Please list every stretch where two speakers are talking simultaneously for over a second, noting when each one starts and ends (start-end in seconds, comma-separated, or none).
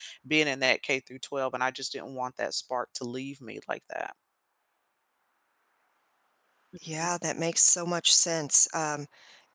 none